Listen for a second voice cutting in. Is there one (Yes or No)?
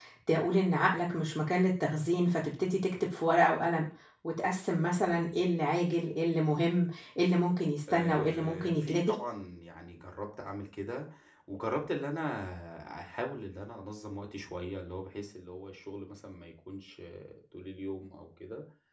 Yes